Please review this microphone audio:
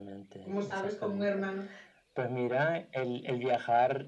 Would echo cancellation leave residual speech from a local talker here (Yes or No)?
Yes